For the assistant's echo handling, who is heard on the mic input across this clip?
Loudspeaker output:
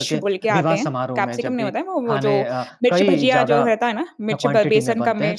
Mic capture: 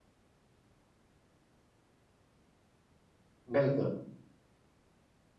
user only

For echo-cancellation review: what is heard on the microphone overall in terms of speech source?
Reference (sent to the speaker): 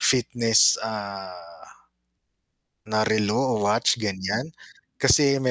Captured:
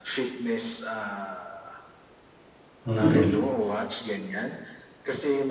both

